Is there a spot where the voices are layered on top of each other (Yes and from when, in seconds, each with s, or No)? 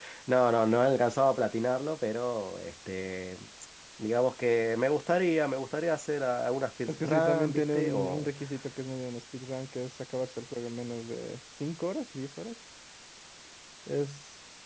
Yes, from 6.9 s